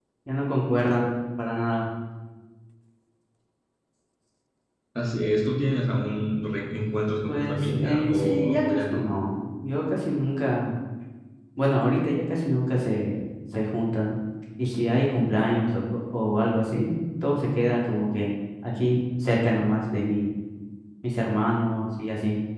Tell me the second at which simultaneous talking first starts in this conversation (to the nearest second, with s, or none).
7 s